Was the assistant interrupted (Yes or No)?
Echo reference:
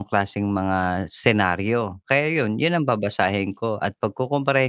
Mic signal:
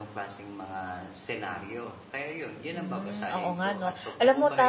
Yes